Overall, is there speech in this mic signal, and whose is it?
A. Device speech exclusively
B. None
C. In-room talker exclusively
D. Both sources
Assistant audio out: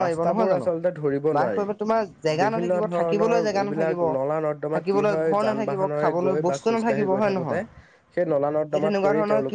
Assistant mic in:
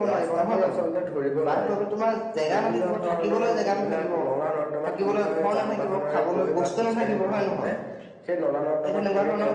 A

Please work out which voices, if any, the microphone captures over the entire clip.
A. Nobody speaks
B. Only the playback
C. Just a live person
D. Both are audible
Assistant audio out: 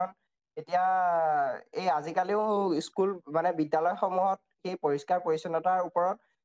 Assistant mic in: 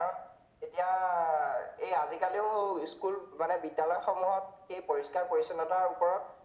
B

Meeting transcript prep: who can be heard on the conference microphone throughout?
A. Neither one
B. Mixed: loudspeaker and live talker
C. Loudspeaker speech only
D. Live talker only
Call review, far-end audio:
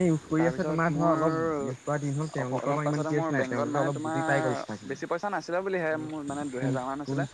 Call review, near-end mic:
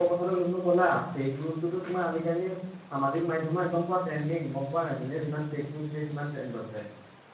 D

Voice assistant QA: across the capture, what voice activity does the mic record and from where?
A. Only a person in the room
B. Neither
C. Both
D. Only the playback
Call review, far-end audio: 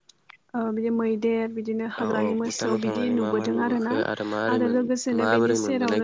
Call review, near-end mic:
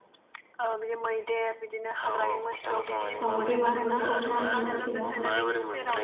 C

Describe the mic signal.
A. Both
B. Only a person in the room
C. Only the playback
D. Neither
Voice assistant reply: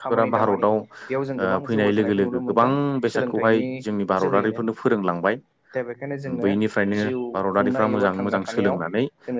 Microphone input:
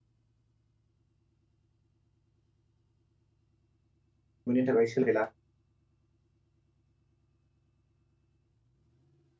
B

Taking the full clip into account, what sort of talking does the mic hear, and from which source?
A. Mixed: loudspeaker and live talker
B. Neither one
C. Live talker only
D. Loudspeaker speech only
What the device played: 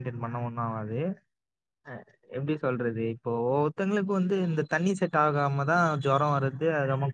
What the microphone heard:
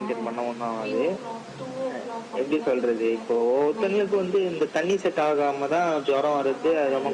A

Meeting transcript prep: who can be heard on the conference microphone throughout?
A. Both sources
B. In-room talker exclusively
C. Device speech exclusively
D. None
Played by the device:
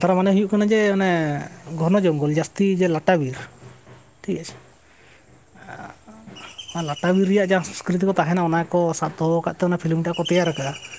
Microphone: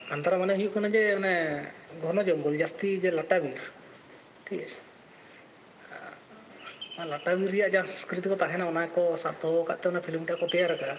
C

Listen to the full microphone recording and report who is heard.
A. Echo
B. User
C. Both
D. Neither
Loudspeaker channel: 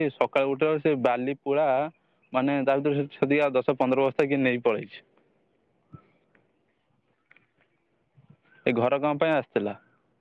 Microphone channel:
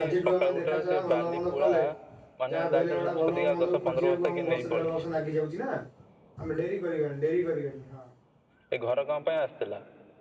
C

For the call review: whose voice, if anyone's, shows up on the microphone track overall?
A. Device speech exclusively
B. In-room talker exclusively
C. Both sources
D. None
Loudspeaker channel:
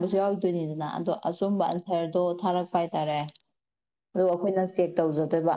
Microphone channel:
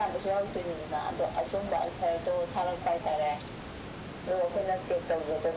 A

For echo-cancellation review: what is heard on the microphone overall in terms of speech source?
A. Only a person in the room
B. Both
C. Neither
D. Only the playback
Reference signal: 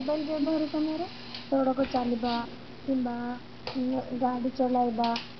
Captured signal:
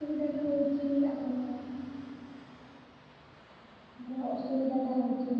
A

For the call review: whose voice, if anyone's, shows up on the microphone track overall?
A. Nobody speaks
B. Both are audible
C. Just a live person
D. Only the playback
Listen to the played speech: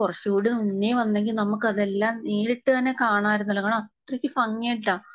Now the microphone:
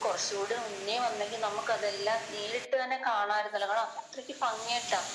D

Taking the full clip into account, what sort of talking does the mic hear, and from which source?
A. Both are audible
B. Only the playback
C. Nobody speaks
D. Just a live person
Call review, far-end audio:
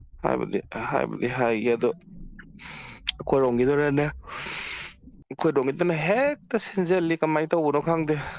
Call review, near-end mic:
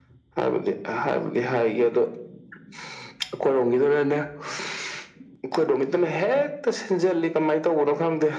B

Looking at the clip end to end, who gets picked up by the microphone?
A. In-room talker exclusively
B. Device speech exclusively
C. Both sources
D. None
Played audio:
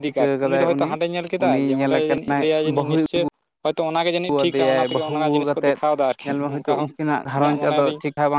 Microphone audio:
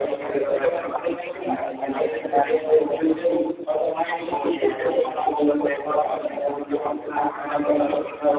B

